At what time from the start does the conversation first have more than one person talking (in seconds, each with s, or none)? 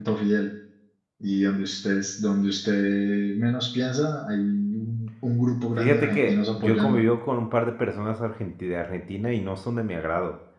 5.8 s